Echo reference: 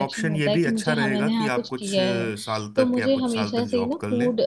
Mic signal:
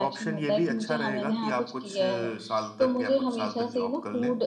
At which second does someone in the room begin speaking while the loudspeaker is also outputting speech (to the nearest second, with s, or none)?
none